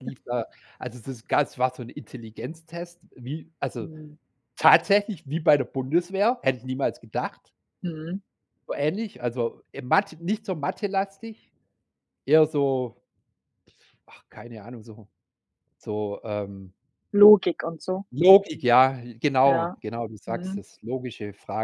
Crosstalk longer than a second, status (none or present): none